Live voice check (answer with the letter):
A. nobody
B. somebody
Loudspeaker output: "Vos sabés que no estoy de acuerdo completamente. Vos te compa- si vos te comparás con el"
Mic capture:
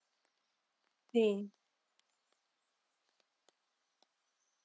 B